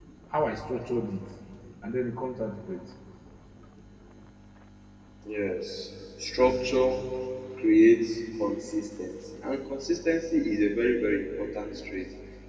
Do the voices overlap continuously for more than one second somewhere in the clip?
No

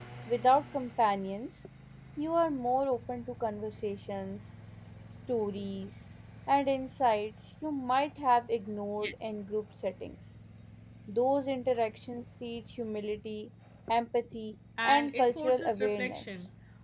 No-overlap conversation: No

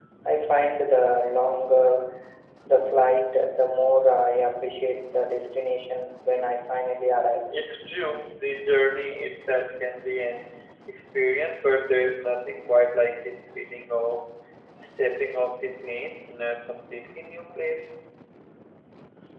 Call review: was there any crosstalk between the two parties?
No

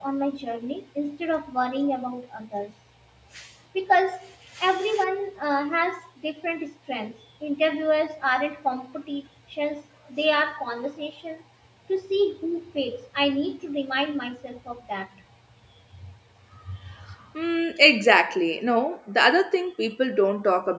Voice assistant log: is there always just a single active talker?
Yes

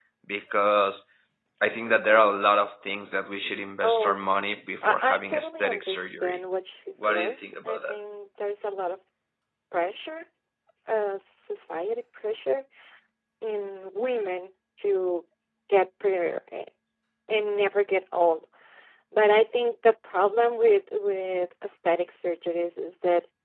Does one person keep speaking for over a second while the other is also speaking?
Yes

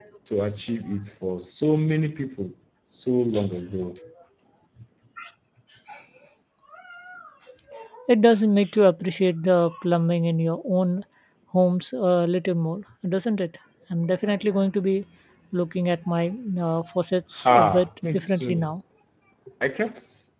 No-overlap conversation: No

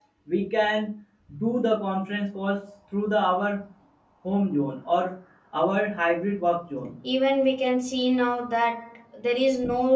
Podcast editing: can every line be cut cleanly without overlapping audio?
Yes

